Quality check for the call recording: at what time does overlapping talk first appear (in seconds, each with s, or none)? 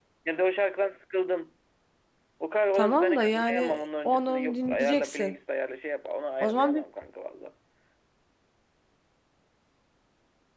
2.7 s